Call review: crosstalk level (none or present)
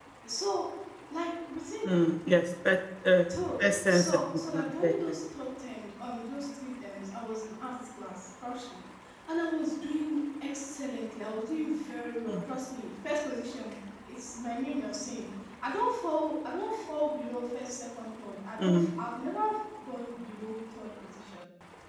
present